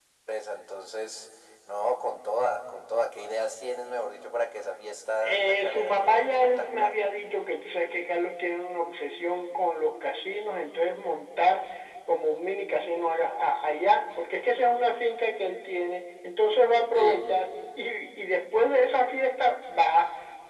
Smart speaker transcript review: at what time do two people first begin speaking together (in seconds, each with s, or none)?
5.2 s